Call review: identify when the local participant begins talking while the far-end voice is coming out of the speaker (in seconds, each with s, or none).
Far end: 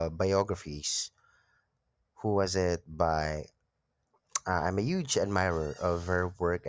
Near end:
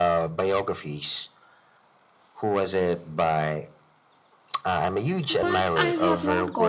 5.3 s